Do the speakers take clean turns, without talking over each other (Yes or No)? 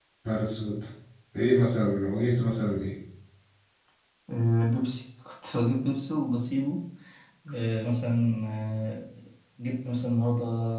Yes